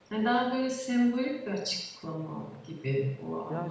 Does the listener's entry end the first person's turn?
Yes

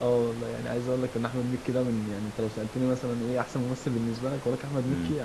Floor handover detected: No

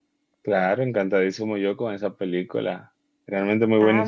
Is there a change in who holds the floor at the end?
Yes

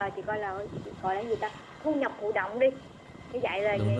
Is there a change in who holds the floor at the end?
No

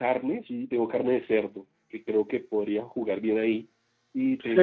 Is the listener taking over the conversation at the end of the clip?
Yes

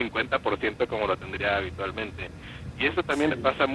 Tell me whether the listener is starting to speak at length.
No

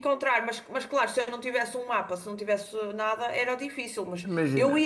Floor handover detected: No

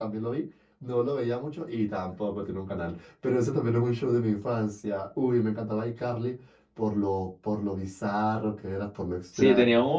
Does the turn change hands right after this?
Yes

